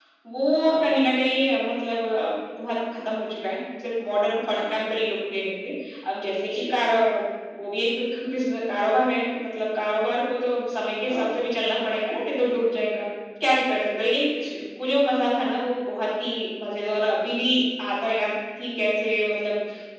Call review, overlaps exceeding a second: none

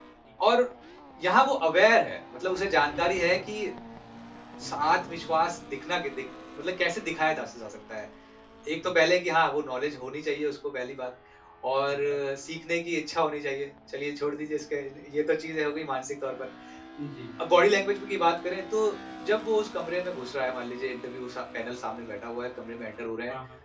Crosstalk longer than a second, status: none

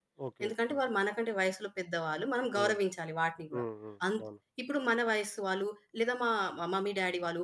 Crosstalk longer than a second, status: none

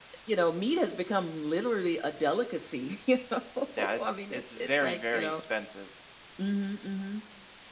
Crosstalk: present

